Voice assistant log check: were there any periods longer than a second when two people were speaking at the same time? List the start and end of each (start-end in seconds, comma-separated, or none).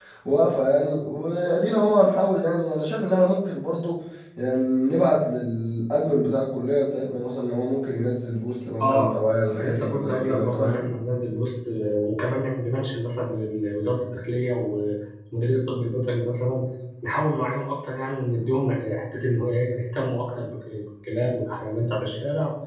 9.5-10.8